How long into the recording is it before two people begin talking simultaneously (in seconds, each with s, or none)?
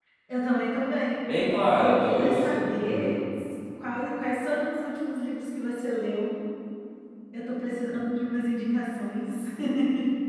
1.8 s